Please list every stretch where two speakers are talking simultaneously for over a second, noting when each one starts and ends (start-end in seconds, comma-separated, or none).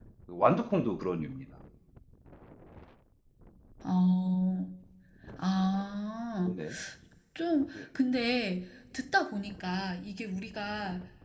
none